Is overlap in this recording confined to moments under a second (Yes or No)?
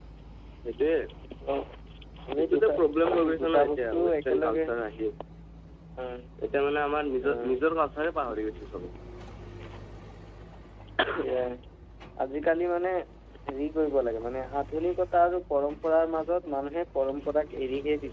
No